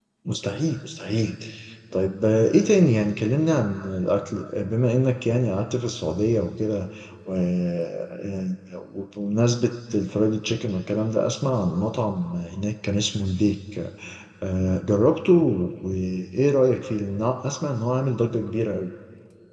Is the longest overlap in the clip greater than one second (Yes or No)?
No